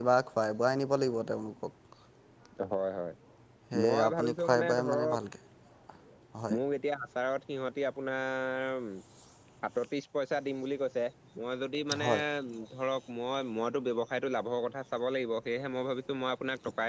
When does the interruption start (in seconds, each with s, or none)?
3.8 s